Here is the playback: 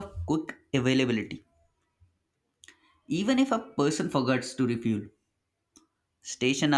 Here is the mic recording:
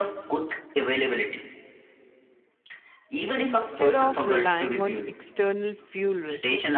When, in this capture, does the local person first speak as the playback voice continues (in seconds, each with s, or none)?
3.3 s